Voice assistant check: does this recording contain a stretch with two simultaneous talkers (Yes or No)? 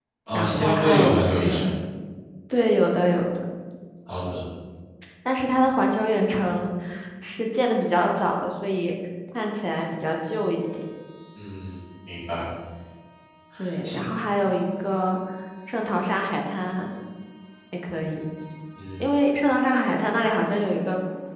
Yes